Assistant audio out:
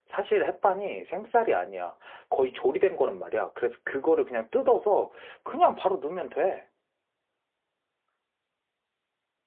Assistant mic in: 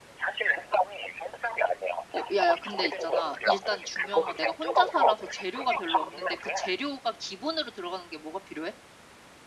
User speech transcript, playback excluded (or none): 어, 야, 야, 근데 있잖아. 일단 중요한 건 내가 혼자 살아서 재료가 별로 없는데 그 재료가 기본으로 들어가는 게 뭐가 필요해?